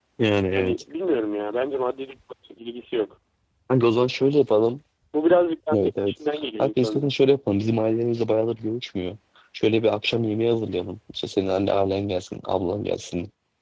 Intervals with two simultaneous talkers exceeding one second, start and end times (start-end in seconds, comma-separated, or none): 5.7-7.0